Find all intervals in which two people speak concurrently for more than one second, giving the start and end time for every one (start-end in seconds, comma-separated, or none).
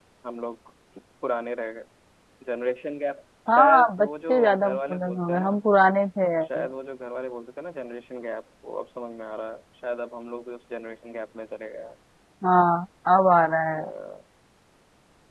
3.6-5.5